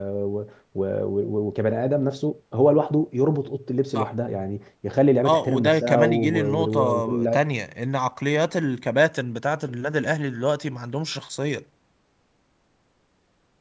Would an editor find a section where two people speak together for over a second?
Yes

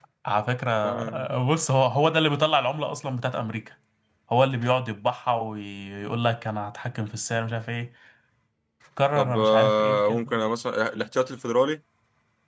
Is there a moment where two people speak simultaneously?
Yes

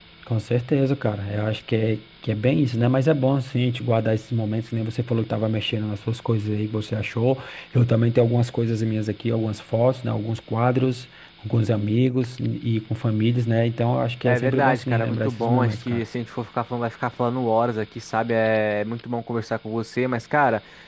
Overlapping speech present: Yes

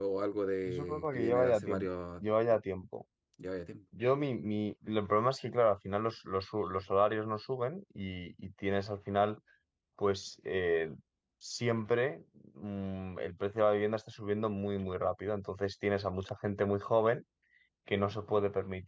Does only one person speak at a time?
No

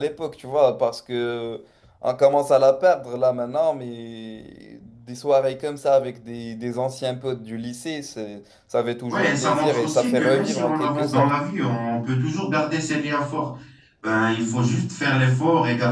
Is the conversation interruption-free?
No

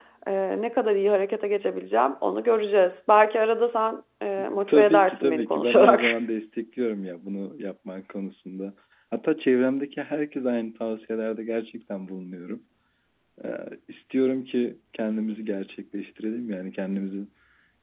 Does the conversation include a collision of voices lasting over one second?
Yes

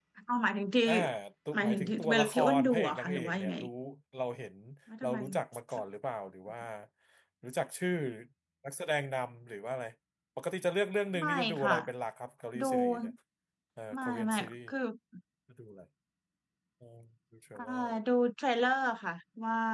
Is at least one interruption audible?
Yes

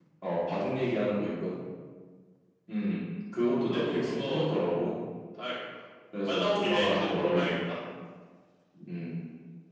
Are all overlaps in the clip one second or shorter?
No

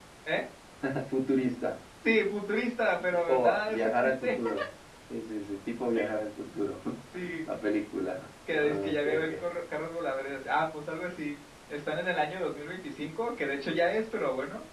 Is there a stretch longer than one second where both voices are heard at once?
Yes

